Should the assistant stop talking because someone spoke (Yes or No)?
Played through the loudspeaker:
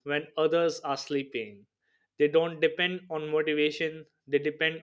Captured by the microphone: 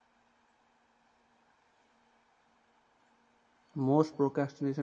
Yes